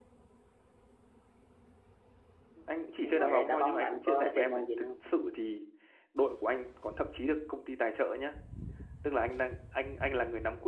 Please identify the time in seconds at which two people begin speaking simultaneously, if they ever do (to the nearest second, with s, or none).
3 s